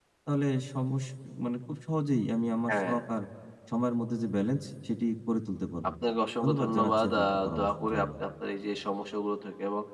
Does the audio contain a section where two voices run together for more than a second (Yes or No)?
Yes